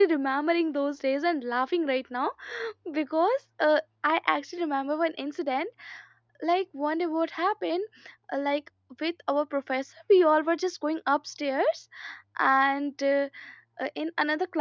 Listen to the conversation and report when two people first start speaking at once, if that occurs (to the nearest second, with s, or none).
none